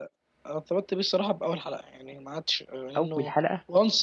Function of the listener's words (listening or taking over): listening